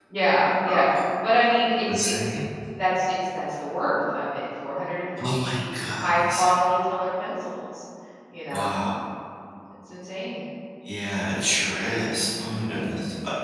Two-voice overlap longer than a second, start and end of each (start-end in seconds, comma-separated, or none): 5.2-6.4